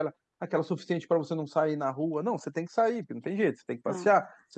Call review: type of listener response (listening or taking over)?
listening